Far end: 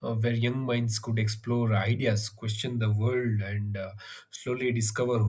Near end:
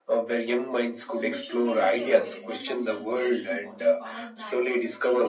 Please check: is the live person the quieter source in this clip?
Yes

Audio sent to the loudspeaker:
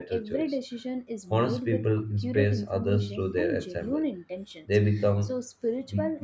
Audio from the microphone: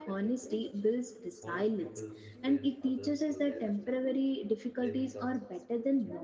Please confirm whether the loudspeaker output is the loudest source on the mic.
No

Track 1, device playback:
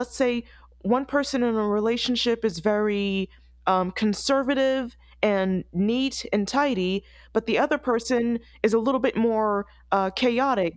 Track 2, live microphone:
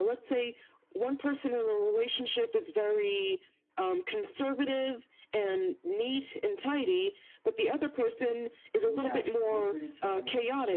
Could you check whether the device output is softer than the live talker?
No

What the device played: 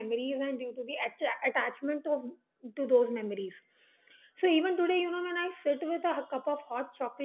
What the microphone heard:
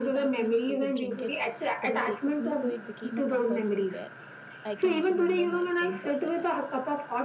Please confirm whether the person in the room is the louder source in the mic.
No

